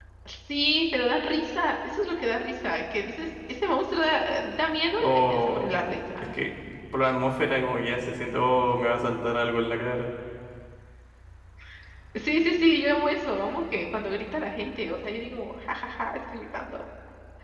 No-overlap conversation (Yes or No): No